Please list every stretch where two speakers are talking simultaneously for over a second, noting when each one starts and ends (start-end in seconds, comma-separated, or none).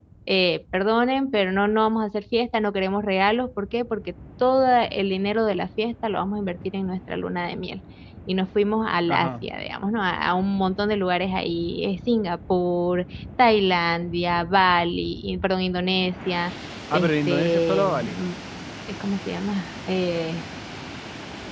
16.9-18.2